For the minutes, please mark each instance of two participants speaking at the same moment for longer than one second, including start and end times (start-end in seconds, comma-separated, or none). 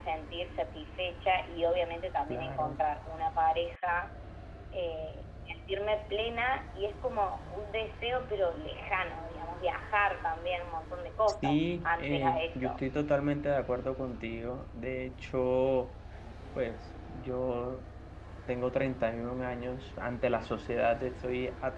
11.4-12.8